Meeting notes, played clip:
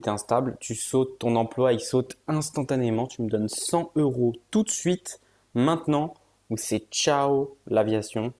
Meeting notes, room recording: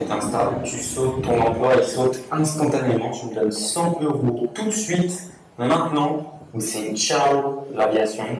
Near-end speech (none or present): none